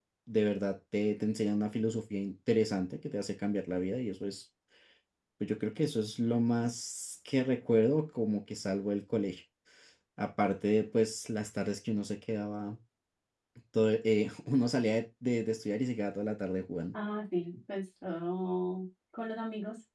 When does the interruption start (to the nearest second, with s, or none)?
none